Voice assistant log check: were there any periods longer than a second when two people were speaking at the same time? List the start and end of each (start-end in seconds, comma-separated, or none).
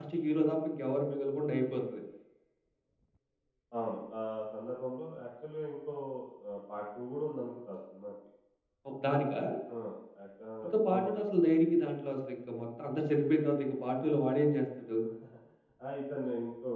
none